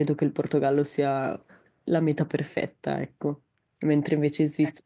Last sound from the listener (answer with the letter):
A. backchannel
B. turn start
A